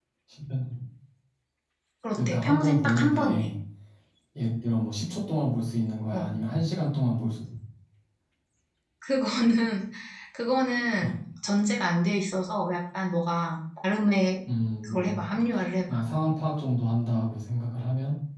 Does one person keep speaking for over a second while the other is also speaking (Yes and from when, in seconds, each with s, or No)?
Yes, from 2.1 s